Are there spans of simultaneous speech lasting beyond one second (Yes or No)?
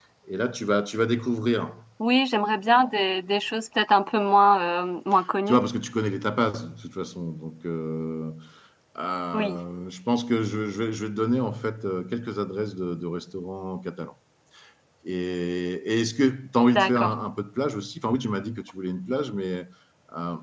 No